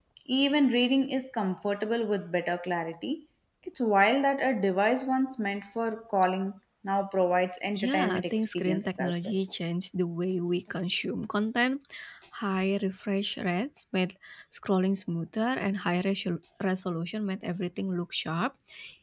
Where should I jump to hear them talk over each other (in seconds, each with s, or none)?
7.8 s